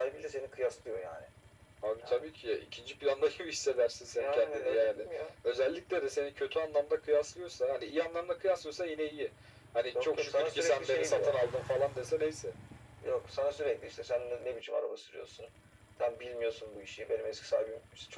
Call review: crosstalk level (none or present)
present